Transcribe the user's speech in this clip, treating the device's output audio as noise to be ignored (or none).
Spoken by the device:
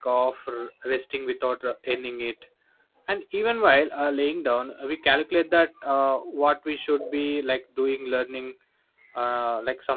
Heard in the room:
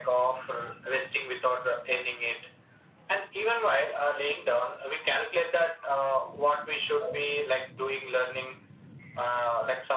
none